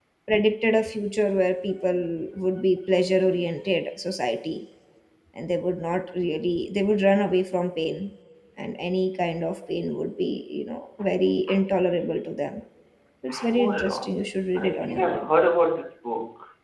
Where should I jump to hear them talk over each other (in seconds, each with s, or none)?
13.3 s